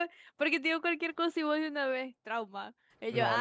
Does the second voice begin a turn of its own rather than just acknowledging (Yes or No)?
Yes